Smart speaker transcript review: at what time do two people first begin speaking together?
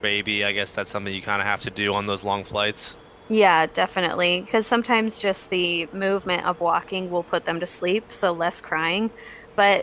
none

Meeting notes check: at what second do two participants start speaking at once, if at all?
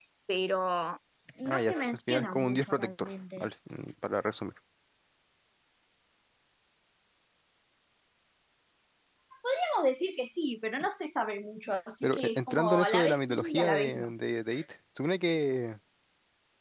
1.4 s

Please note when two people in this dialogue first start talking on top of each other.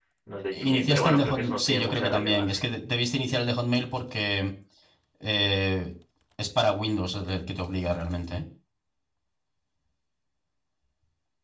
0.5 s

